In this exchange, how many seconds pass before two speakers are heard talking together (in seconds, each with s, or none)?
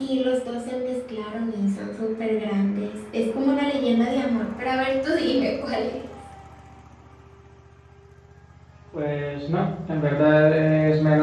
none